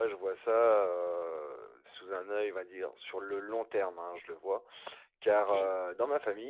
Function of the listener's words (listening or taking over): listening